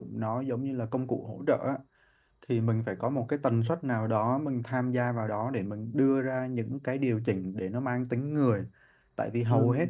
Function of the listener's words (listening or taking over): listening